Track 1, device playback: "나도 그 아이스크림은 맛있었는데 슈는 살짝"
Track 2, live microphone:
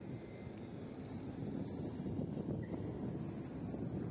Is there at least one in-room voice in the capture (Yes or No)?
No